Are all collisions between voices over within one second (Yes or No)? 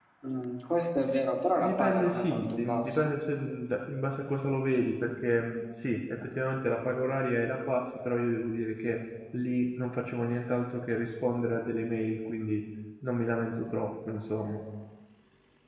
No